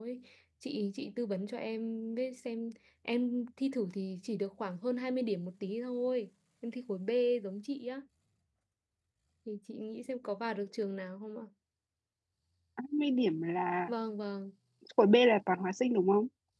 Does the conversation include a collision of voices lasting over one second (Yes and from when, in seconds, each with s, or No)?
No